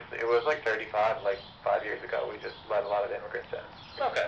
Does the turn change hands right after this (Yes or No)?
Yes